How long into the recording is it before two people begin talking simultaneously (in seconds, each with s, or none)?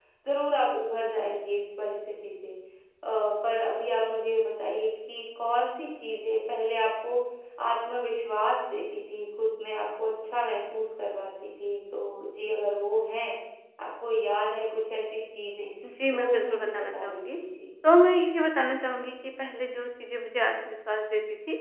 16.1 s